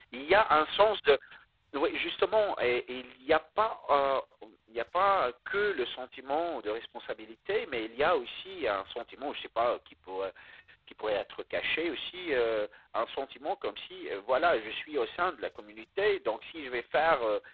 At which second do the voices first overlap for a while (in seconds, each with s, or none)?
none